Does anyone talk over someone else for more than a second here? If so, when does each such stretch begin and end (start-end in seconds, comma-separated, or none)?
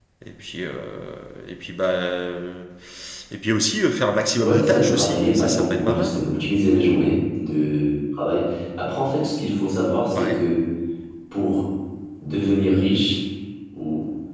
4.4-6.2